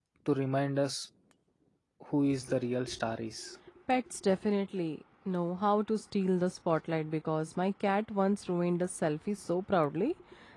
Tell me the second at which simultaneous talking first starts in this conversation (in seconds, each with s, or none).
none